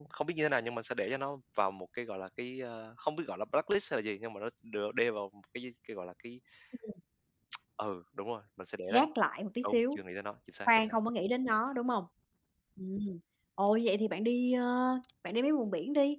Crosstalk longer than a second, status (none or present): none